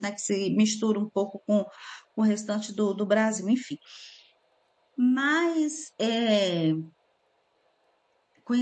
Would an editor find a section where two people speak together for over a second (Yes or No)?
No